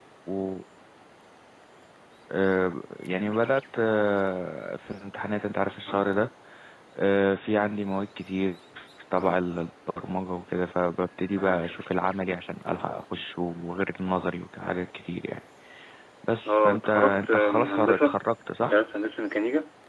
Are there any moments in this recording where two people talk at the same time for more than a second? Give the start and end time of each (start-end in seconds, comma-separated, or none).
16.5-18.1